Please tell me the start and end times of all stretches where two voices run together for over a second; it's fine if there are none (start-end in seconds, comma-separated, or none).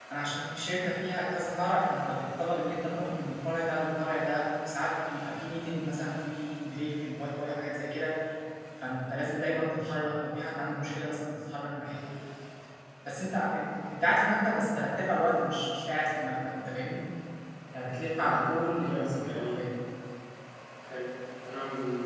18.2-19.6